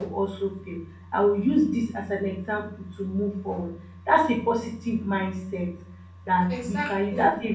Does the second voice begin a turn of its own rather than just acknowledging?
No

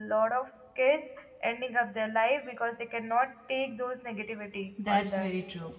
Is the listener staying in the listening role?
No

